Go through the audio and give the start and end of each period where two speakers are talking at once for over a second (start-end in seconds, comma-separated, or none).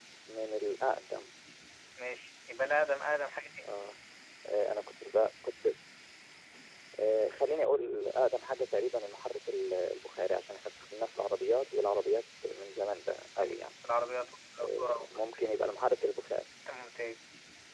none